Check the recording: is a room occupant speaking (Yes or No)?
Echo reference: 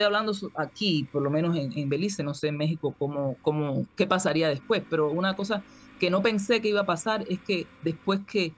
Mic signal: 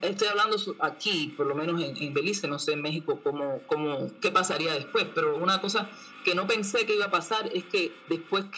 No